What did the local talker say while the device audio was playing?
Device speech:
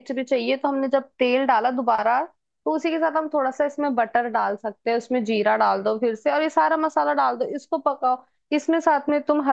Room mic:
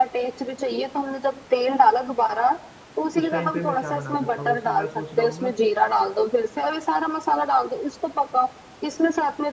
उस टाइम पे मैं क्या बना सकता हूँ जैसे मैं सोच रहा हूँ ना

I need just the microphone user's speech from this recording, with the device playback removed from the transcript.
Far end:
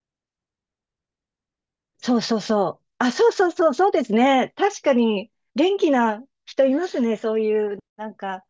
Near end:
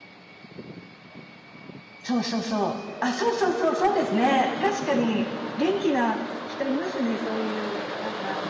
none

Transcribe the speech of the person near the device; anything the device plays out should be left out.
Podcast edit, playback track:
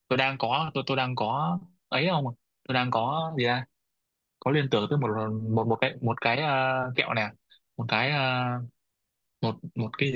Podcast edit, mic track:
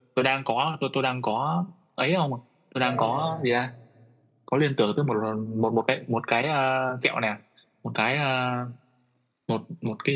có gì cả

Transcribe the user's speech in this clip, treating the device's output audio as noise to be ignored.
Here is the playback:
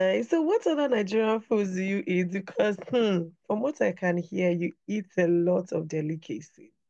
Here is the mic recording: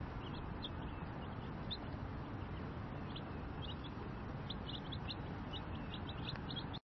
none

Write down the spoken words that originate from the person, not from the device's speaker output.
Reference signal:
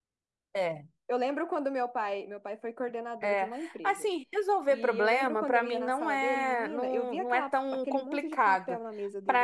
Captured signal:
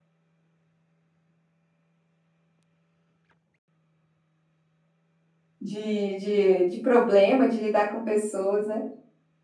de, de, de problema, de lidar com pessoas, né?

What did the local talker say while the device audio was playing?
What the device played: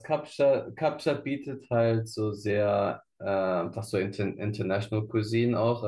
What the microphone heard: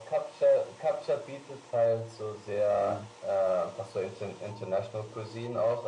Mhm.

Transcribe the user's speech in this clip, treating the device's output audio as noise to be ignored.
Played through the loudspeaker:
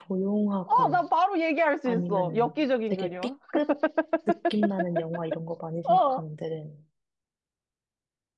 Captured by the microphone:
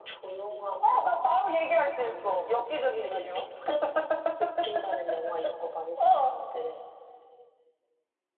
none

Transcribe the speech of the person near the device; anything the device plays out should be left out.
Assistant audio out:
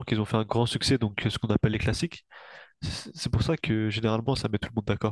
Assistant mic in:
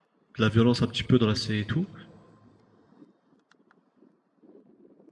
de la violence un petit peu dans la série et tout,

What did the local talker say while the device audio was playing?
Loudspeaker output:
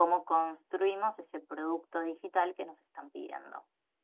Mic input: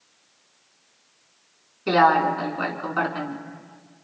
Claro, tal cual, comparten.

